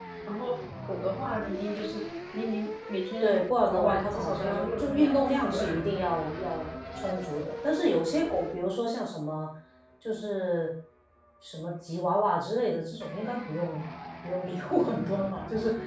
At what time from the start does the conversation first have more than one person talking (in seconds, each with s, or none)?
3.2 s